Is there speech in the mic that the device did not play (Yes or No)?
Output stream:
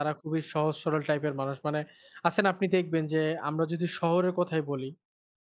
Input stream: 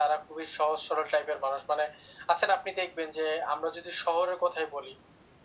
No